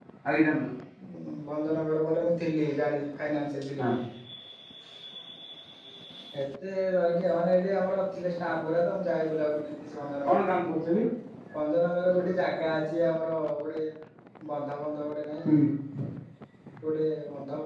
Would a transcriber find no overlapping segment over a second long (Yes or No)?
Yes